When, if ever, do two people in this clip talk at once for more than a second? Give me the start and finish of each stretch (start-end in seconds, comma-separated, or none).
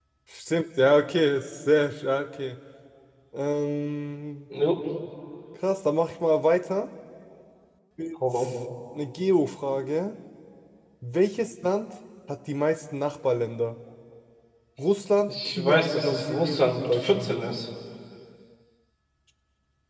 15.3-17.3